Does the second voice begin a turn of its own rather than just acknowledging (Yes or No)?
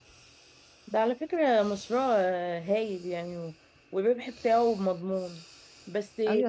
Yes